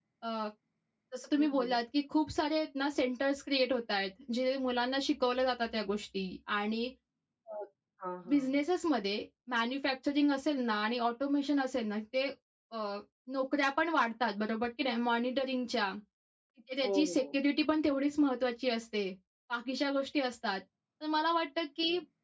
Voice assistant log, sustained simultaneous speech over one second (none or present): none